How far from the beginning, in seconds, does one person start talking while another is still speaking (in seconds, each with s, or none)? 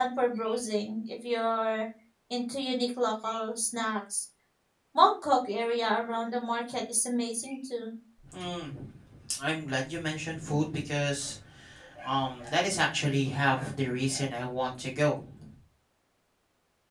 none